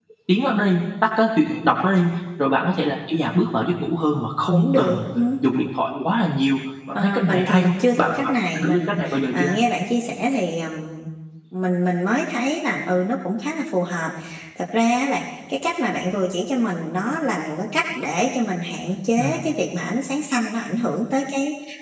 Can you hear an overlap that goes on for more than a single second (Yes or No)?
Yes